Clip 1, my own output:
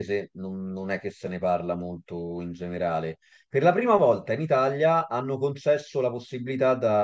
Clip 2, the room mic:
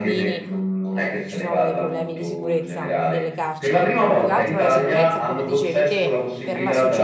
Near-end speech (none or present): present